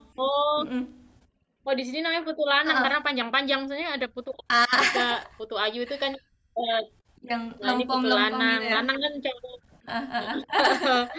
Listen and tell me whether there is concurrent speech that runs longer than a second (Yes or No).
Yes